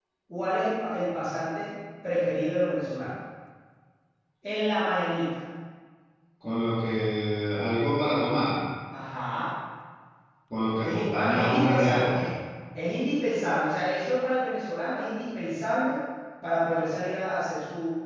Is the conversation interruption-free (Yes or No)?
No